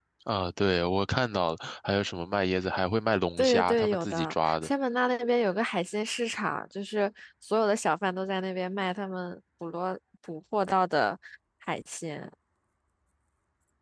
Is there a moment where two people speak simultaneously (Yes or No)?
Yes